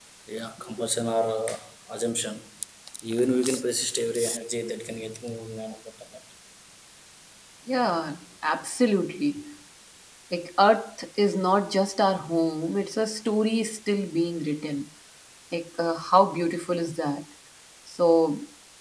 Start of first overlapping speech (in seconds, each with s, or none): none